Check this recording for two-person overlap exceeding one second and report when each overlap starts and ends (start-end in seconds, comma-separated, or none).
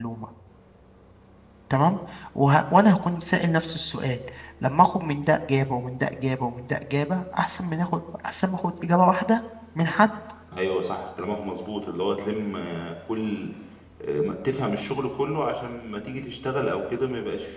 none